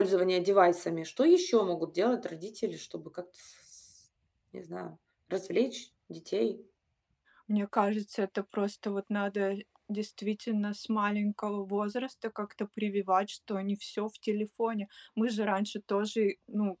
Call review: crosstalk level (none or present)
none